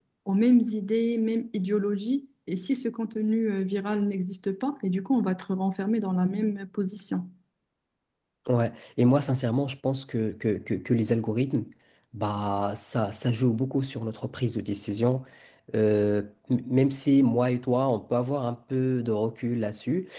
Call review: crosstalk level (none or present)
none